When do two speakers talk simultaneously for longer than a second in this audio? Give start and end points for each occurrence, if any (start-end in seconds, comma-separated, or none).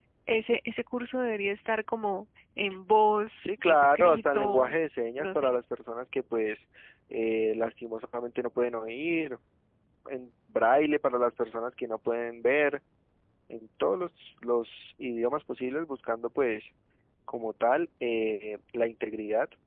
3.4-4.8